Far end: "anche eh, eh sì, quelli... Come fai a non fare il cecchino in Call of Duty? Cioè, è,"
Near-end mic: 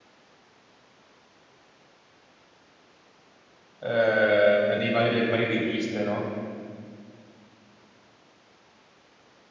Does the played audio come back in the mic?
No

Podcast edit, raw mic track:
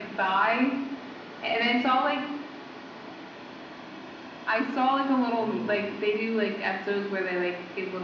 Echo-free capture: No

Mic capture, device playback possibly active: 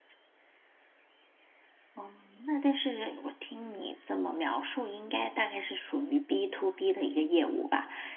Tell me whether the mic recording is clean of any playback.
Yes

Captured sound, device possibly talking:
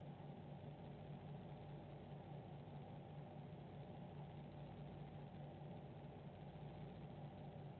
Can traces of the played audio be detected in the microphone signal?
No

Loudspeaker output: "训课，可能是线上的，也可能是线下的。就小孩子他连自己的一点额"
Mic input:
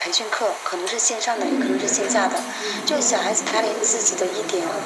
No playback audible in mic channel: No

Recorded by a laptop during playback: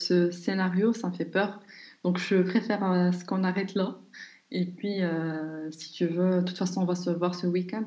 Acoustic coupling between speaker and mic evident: No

